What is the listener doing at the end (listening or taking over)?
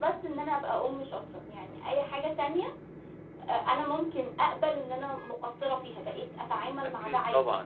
taking over